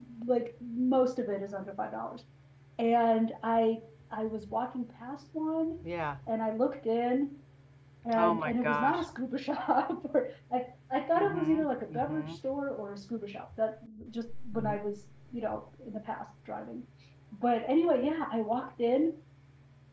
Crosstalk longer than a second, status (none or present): present